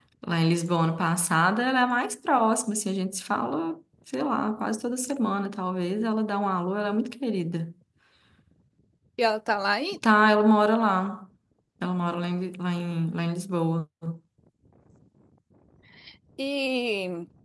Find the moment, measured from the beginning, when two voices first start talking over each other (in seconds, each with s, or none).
none